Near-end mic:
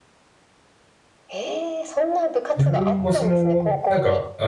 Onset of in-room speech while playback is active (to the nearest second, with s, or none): 3 s